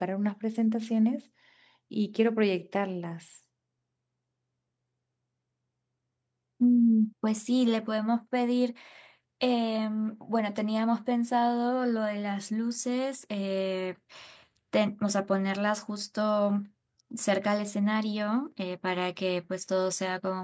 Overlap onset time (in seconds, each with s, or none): none